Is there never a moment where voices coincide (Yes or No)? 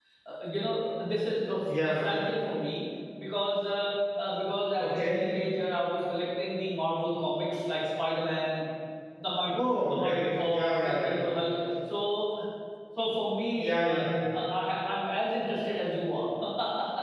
No